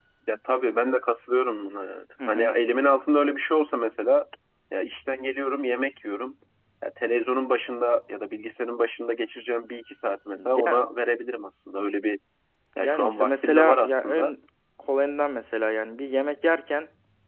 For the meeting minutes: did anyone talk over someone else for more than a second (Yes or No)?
Yes